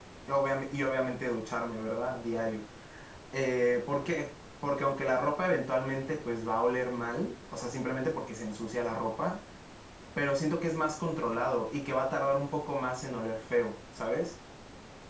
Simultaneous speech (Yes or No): No